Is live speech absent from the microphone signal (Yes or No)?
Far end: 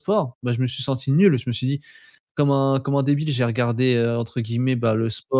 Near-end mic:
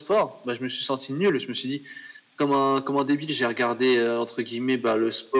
Yes